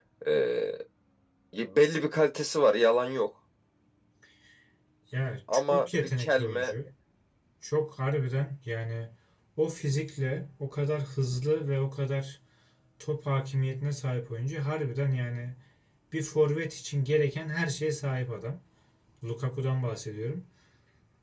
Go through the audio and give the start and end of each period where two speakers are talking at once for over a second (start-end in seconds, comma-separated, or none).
5.5-6.7